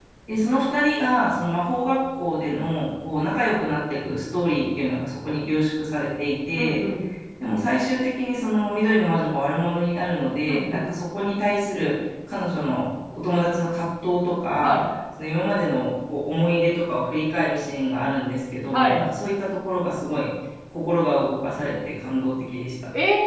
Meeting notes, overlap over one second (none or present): none